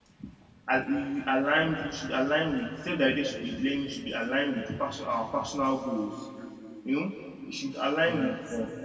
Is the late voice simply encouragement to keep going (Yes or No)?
Yes